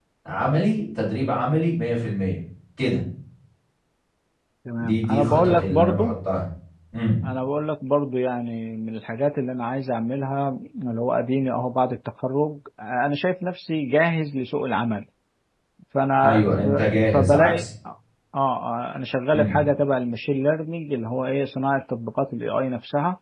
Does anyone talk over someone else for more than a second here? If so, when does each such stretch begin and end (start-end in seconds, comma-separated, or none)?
4.8-6.1, 16.2-17.6